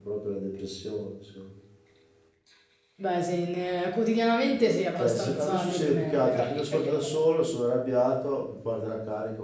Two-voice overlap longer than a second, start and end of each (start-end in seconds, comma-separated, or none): 5.0-7.1